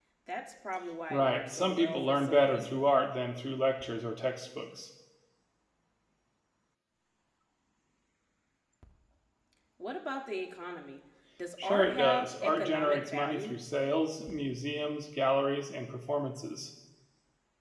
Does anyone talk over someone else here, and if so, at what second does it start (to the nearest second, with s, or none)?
1 s